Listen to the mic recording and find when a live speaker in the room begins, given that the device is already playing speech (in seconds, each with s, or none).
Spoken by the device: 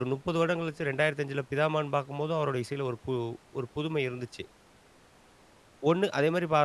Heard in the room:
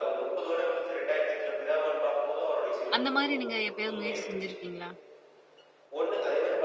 3.0 s